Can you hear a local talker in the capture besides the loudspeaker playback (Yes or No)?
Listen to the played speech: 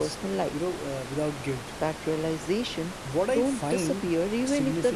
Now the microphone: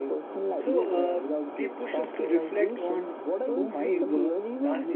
Yes